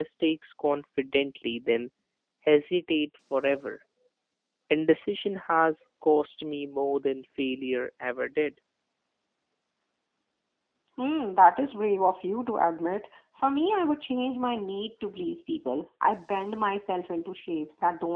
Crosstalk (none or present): none